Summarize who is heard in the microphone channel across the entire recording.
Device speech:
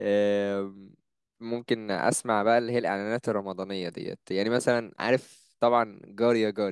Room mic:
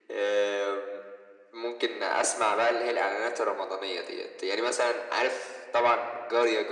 echo only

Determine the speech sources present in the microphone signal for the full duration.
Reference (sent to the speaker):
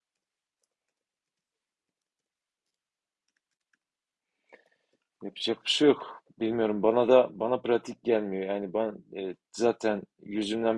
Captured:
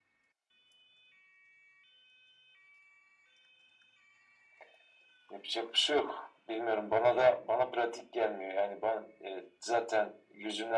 echo only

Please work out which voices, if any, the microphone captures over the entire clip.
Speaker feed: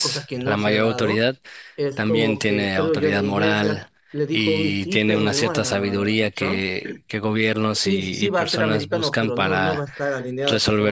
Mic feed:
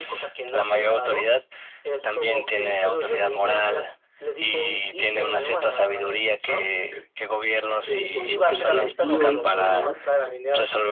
both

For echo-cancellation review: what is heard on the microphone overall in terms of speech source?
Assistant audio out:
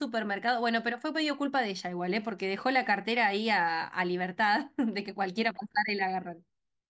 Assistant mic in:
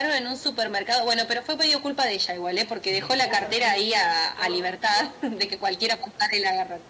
both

